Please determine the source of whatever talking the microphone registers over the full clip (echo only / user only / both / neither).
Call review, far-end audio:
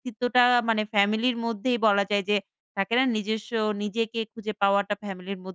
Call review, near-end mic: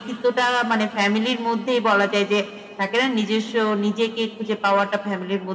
echo only